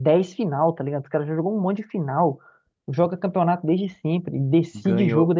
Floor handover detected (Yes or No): Yes